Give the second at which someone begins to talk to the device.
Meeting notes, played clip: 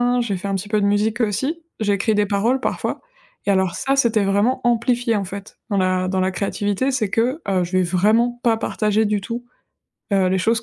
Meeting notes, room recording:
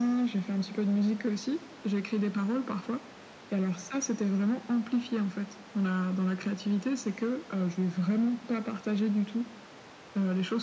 none

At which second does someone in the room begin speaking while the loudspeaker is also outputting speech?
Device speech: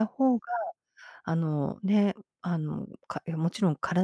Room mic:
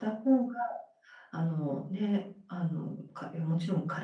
none

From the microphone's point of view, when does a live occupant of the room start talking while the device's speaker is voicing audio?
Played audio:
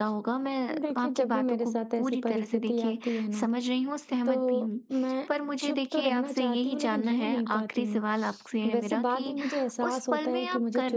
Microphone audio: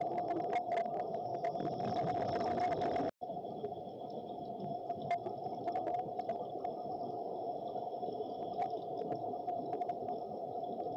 none

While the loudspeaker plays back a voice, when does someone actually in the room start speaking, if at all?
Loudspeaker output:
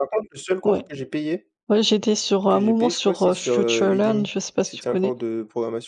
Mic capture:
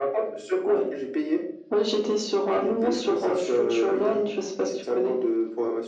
none

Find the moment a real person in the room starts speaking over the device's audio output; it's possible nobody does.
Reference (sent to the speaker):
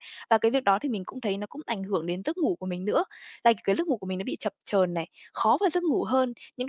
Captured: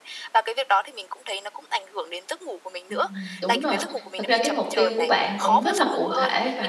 2.9 s

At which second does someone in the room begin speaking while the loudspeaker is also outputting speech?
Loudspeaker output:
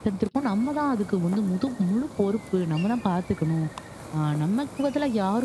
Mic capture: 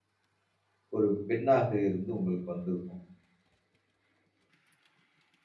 1.0 s

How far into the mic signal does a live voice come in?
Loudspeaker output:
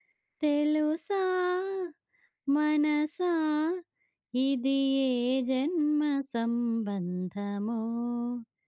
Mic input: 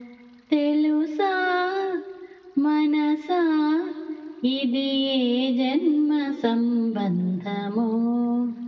none

